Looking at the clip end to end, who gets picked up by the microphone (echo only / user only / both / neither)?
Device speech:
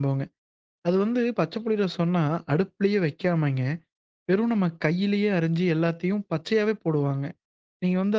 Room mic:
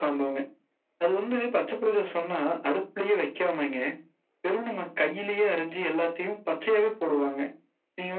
echo only